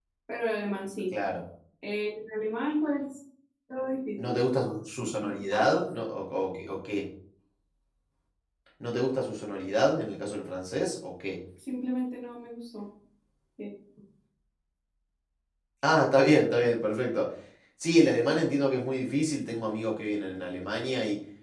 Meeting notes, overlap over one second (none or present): none